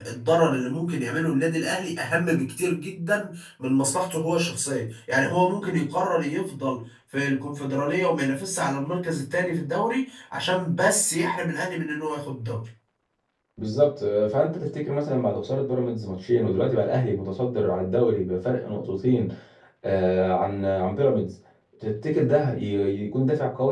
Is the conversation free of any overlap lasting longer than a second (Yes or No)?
Yes